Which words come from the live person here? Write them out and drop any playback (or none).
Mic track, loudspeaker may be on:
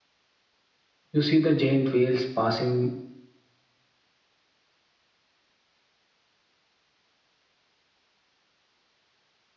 you see the giant whales passing